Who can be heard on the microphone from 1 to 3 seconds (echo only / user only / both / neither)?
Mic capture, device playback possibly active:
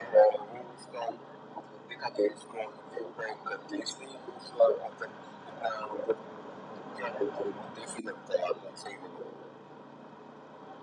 echo only